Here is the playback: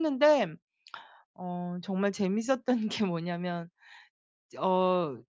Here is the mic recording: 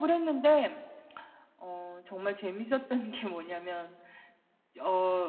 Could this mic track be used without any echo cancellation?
No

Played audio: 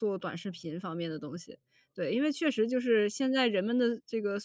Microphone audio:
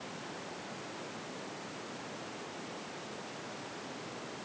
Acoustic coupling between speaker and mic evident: No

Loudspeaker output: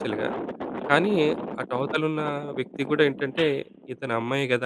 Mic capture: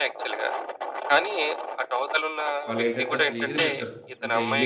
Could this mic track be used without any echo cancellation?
No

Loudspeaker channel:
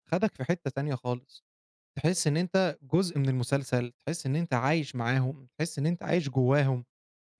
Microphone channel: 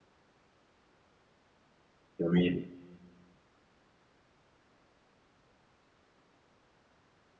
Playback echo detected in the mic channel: No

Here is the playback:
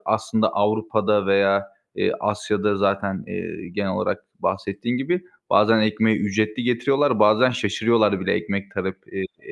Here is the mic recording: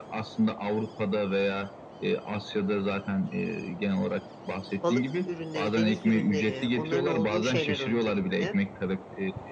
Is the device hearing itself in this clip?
Yes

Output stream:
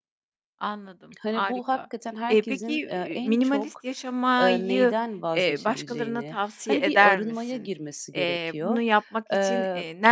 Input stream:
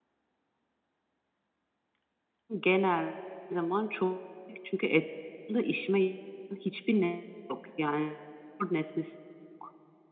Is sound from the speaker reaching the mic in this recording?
No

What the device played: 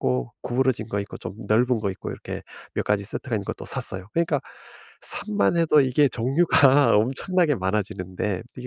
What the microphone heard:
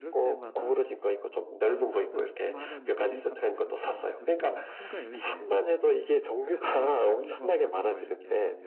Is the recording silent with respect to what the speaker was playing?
No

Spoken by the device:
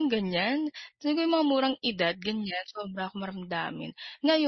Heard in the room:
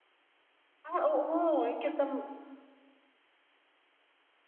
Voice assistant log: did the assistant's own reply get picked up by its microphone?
No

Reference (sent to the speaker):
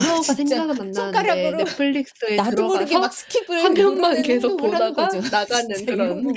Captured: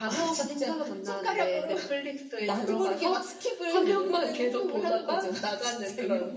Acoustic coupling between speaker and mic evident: Yes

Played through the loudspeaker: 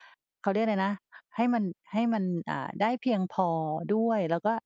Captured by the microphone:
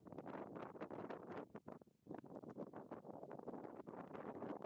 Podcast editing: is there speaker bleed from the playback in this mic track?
No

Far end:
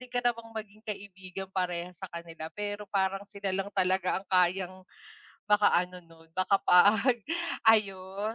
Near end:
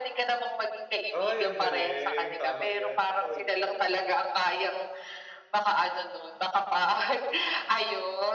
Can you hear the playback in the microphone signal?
Yes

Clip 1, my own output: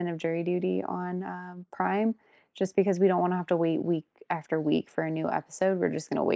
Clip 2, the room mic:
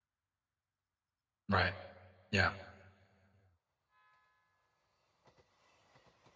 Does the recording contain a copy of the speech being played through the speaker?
No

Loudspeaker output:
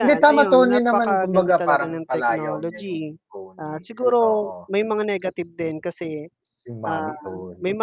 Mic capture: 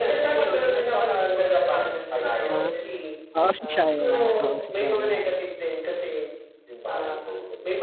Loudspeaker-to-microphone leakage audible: Yes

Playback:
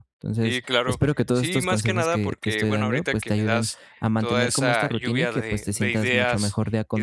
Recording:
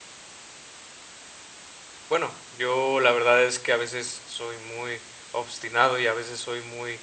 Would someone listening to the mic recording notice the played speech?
No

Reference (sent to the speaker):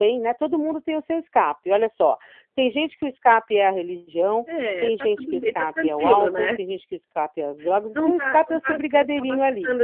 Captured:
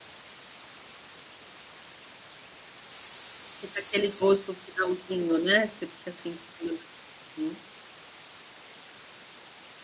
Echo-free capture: Yes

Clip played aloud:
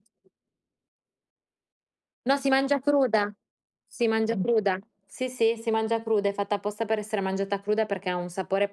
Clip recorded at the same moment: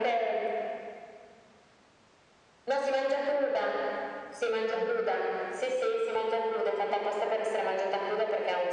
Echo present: Yes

